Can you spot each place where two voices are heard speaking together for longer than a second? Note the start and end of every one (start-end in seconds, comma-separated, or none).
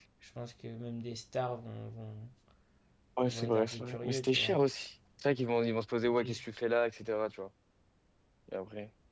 3.3-4.6